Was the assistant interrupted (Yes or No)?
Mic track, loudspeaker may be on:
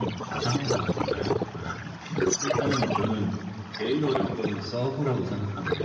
Yes